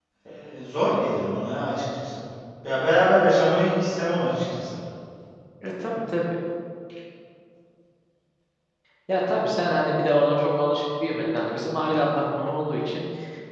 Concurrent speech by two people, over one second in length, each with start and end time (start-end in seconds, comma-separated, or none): none